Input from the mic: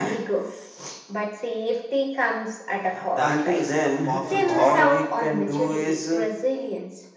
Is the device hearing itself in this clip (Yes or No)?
Yes